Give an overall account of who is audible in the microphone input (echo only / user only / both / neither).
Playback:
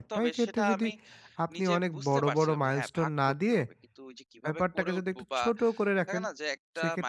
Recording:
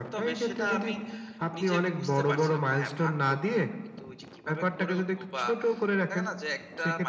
echo only